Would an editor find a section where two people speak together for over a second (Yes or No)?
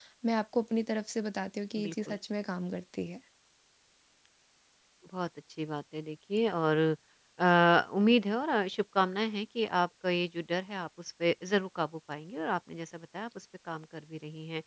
No